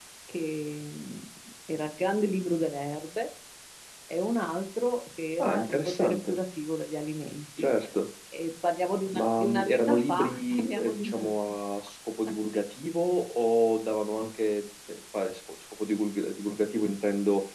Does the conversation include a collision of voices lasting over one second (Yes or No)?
Yes